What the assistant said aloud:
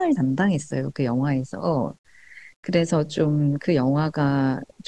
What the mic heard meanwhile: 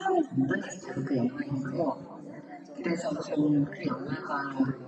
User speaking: Yes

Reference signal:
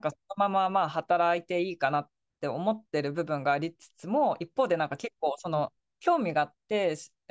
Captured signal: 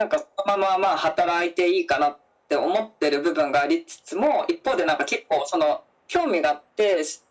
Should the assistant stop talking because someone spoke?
No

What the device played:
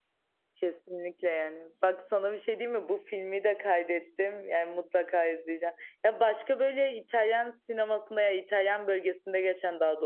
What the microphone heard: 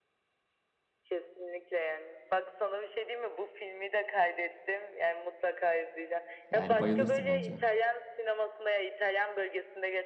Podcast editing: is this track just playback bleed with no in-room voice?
No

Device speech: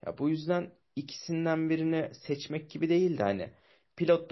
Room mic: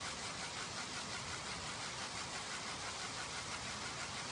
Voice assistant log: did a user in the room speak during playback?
No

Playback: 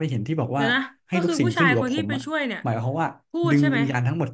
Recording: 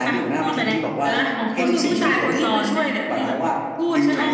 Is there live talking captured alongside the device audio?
Yes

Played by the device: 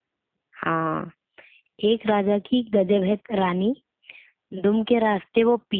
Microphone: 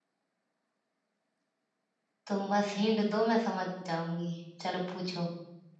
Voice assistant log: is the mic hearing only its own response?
No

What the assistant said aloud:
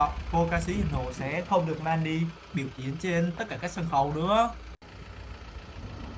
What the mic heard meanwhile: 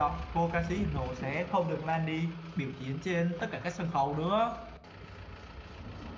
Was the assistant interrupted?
No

